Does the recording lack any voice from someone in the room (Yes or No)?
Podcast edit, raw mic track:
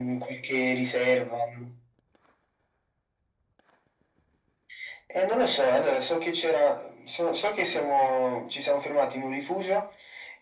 Yes